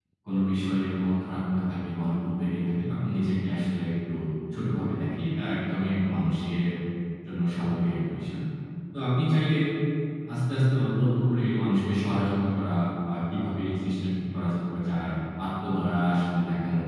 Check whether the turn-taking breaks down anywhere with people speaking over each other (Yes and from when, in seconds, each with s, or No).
No